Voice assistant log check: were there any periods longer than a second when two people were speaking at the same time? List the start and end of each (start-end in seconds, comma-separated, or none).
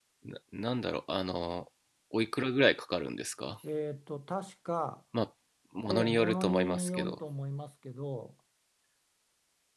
5.9-7.2